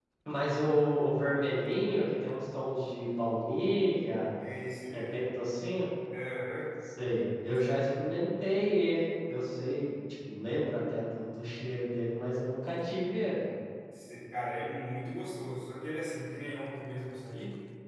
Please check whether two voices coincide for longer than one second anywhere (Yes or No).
No